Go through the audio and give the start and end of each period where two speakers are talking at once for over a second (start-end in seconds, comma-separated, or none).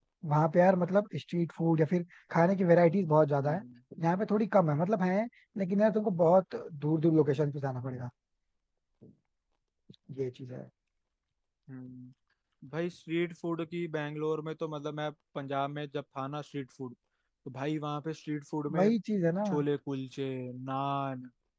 none